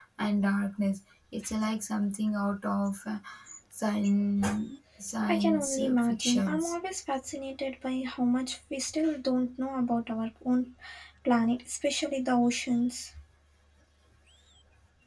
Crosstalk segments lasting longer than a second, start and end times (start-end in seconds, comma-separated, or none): 5.3-6.7